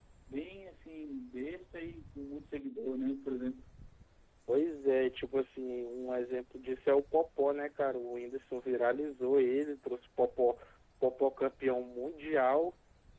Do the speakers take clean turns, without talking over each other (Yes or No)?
Yes